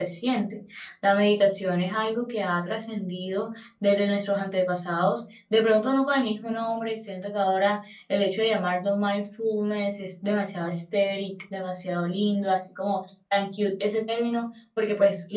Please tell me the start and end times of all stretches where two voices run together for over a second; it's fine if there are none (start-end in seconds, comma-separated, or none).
none